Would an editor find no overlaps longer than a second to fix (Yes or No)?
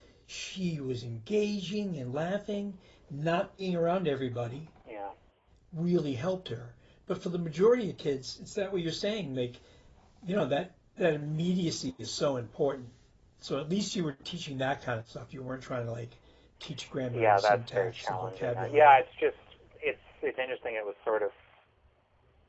No